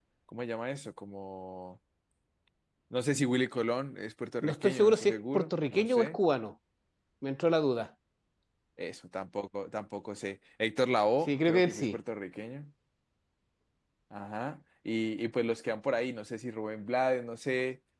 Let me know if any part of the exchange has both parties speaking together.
Yes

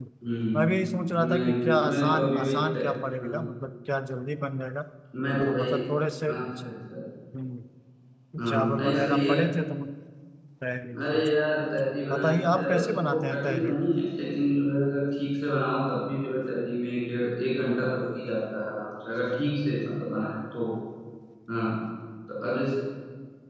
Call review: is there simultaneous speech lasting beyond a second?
Yes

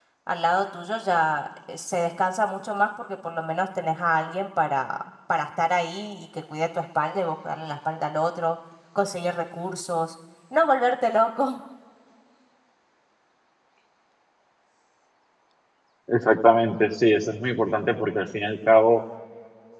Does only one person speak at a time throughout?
Yes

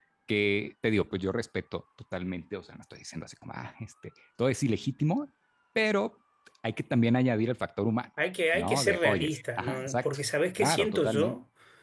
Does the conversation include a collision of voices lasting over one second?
Yes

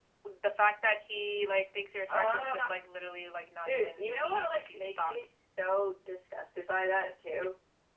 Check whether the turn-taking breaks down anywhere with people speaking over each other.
Yes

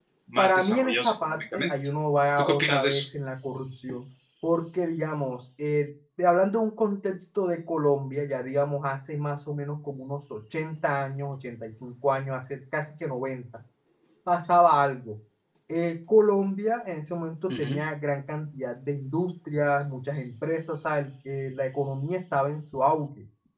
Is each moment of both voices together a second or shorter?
No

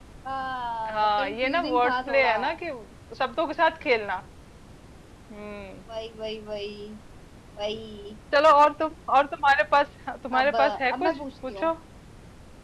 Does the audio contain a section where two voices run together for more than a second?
Yes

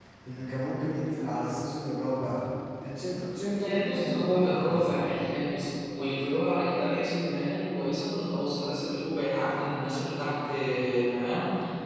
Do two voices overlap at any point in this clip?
Yes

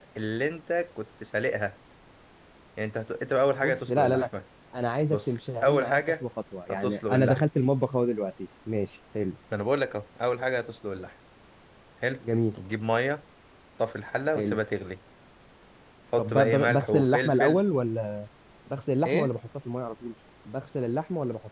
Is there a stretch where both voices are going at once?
Yes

